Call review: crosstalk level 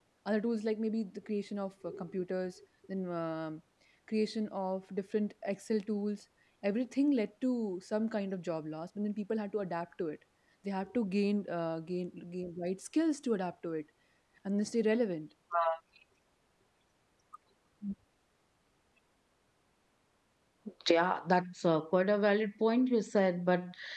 none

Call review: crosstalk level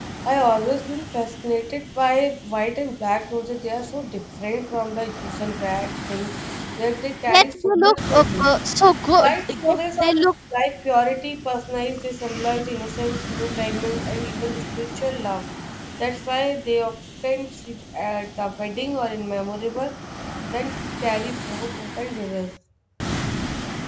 present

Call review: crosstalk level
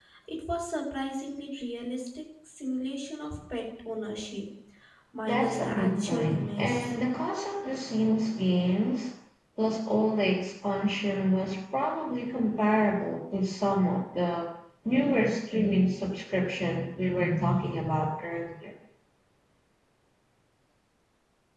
present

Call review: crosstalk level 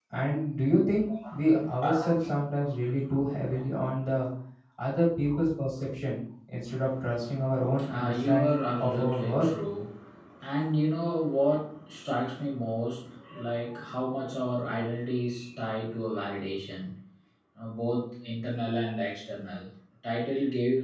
present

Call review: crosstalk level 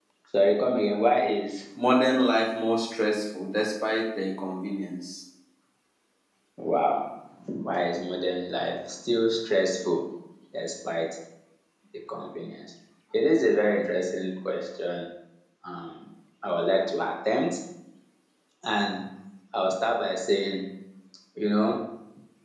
none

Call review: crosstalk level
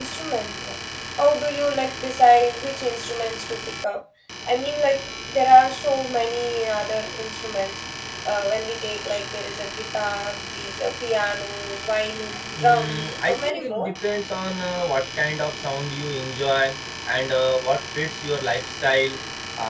present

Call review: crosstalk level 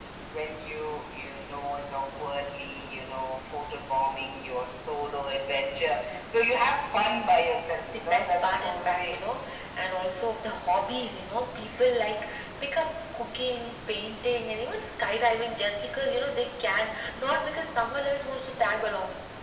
present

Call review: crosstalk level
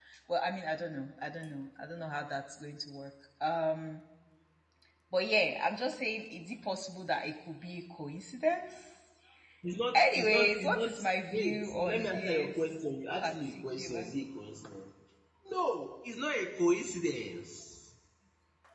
present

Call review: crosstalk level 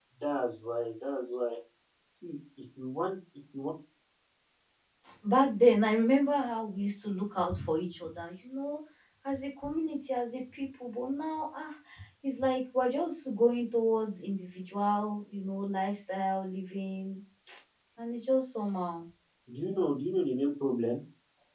none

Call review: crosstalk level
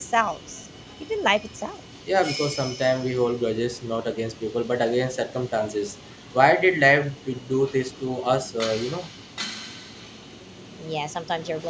none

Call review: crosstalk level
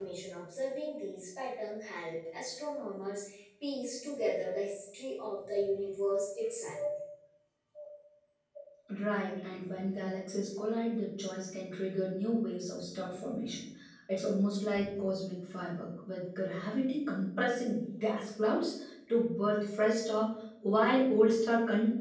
none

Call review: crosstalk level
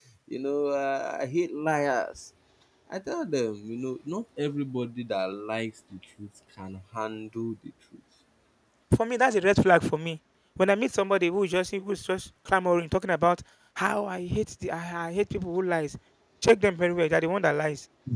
none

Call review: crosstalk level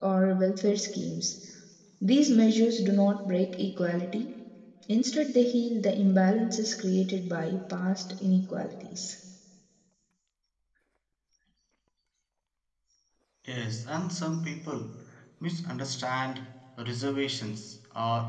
none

